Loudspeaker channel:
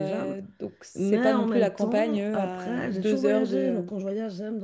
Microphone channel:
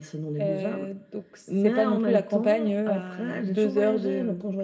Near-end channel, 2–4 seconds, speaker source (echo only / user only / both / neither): echo only